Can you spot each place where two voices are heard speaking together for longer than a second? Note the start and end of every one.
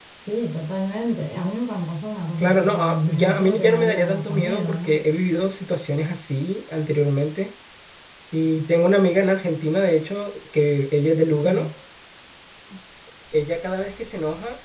2.4-5.1

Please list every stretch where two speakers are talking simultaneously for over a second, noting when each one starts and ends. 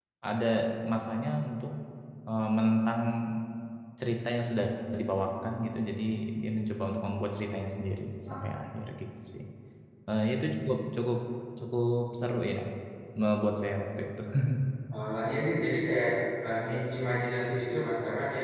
none

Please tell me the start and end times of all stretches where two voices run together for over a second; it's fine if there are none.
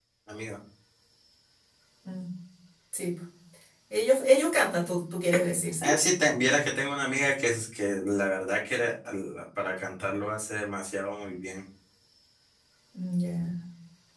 none

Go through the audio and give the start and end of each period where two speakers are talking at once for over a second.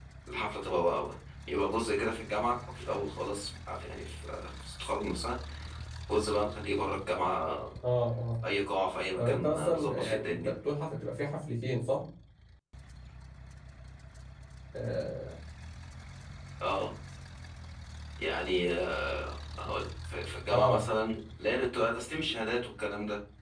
9.2-10.5

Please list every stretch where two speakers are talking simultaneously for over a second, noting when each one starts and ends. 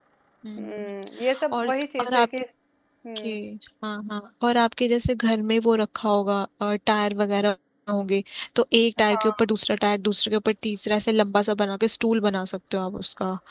none

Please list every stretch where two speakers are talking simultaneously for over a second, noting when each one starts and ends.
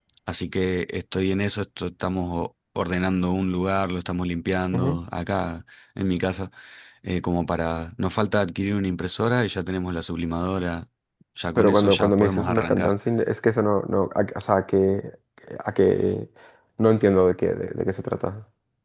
11.6-12.8

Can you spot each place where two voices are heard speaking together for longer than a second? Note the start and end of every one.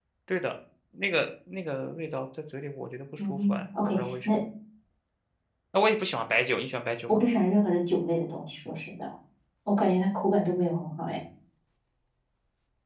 3.2-4.4

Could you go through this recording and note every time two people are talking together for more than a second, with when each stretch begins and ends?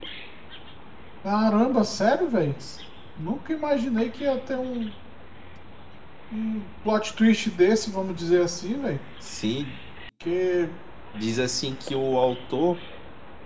none

